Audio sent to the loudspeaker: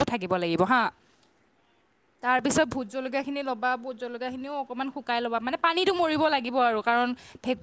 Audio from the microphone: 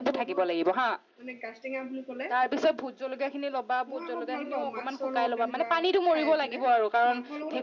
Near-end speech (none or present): present